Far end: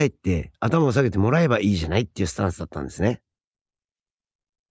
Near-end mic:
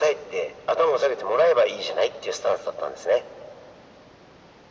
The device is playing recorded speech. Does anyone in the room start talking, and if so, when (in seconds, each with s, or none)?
none